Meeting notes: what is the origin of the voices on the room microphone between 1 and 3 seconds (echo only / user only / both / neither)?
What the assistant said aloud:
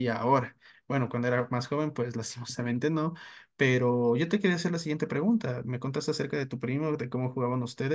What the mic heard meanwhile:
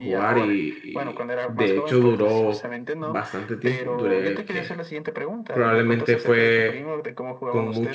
both